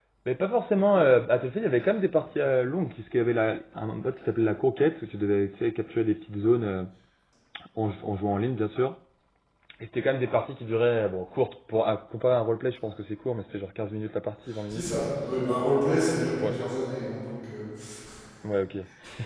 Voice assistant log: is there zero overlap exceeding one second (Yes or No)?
Yes